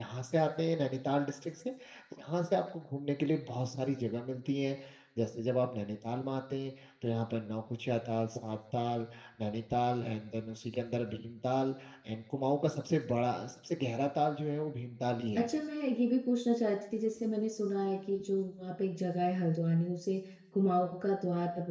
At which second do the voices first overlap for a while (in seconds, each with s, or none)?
none